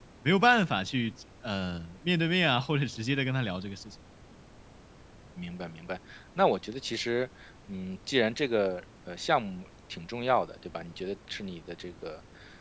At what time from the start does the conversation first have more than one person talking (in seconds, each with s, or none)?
none